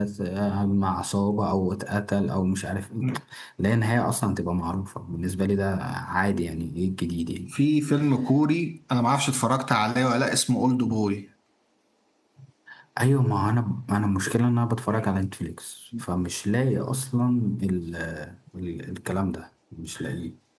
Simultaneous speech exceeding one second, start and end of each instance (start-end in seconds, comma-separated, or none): none